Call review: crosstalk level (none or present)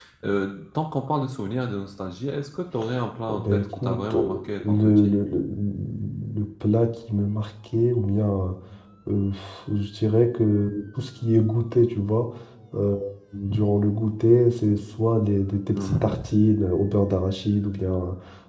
present